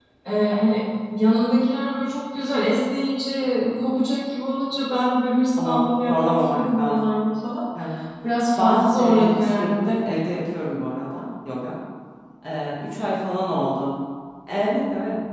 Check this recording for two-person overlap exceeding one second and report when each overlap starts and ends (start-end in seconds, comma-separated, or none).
5.6-7.2, 8.6-10.0